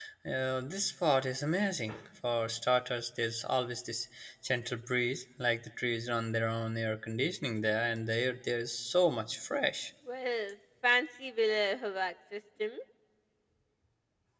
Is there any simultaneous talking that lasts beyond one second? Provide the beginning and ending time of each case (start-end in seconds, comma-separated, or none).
none